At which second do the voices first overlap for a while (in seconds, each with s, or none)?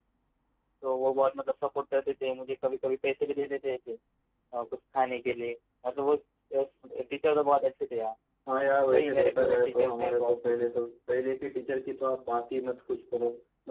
8.9 s